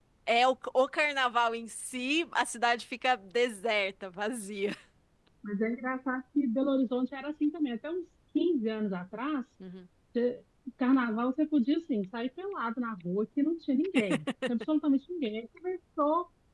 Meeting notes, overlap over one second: none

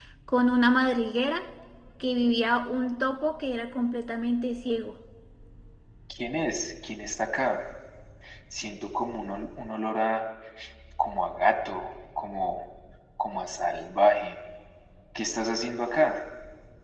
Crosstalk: none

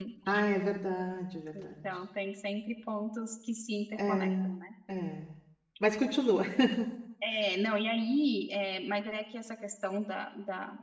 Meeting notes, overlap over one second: none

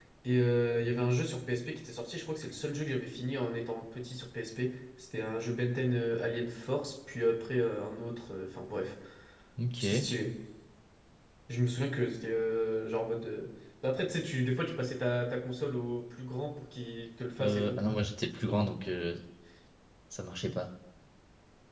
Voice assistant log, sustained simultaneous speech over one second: none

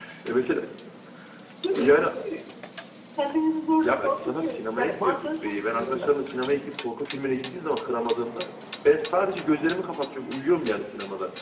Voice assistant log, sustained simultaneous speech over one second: present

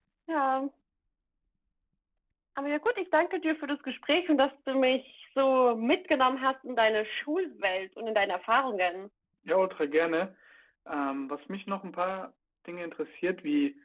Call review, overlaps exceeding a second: none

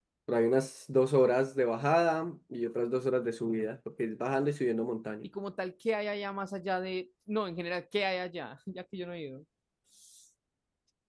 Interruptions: none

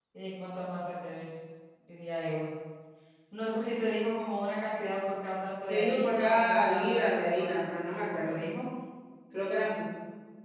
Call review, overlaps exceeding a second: present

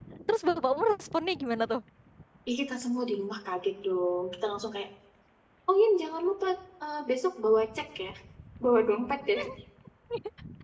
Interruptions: none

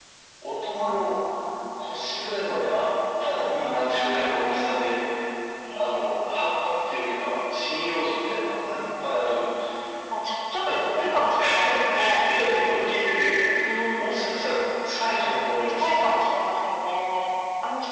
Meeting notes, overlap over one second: present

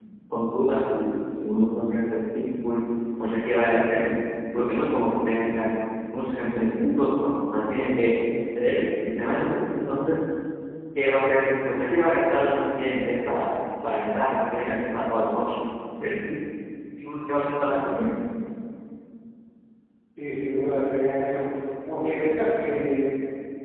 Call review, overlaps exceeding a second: none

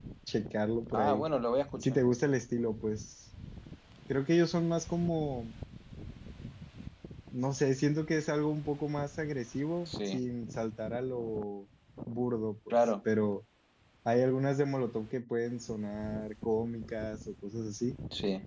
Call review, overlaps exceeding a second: none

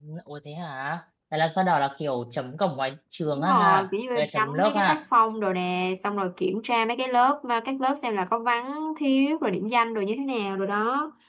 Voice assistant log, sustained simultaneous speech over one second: present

